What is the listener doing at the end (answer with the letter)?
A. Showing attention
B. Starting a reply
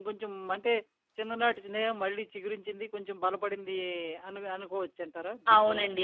B